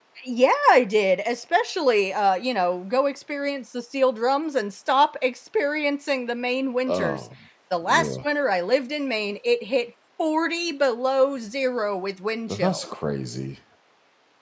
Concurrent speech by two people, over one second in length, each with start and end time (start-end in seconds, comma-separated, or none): none